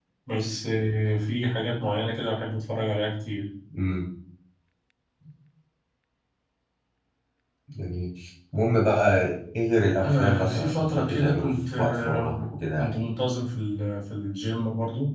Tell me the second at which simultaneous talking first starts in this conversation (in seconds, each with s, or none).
10.0 s